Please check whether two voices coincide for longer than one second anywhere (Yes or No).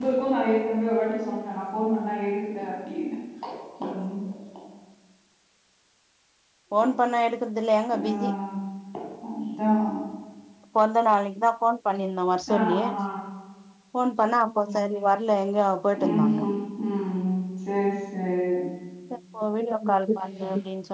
No